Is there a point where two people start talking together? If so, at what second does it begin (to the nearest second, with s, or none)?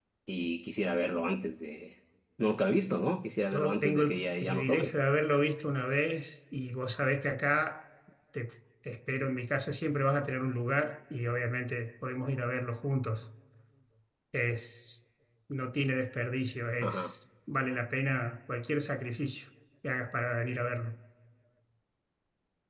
4 s